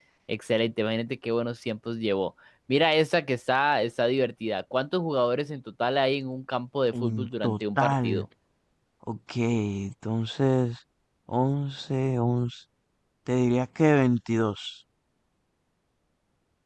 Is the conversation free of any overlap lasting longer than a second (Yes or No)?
No